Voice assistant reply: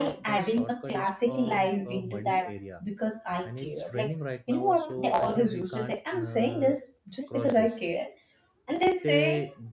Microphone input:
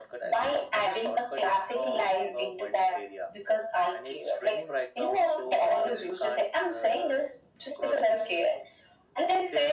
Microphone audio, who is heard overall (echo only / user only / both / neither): echo only